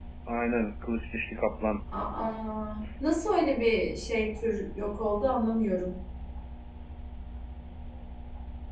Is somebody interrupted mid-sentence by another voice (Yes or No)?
No